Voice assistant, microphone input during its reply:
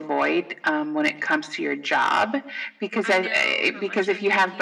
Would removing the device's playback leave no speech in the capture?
No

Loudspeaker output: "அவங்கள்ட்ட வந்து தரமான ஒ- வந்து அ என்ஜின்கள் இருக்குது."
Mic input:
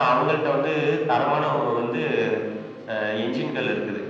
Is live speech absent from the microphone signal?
Yes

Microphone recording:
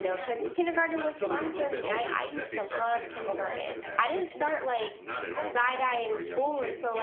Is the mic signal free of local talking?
No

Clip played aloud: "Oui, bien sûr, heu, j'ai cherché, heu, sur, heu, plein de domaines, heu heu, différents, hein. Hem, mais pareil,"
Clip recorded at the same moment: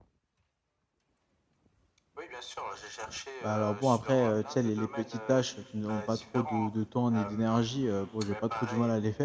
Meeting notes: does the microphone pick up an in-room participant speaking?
Yes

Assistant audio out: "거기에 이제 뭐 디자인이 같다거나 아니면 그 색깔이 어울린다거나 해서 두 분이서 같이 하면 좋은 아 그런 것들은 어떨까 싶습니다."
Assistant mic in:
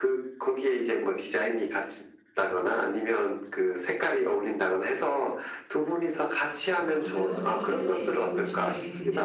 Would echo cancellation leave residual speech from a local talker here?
Yes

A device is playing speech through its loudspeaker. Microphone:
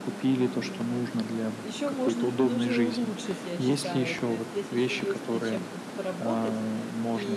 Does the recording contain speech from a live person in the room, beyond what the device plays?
Yes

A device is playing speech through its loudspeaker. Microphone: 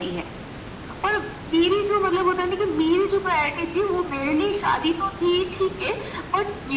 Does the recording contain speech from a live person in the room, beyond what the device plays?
No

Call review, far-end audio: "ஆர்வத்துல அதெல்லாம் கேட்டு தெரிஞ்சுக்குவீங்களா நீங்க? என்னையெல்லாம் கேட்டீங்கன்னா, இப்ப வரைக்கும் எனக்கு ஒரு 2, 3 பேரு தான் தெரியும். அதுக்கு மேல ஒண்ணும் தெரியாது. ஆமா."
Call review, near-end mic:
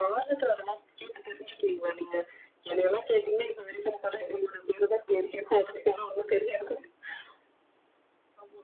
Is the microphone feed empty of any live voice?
Yes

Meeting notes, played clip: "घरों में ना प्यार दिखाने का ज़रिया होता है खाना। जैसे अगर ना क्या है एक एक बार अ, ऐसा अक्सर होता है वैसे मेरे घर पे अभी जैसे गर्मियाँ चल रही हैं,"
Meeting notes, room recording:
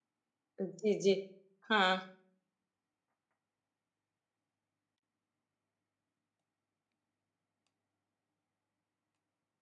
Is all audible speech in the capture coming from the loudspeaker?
No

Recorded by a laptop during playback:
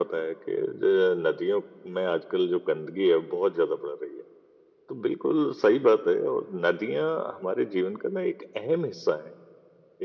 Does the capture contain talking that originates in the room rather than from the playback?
No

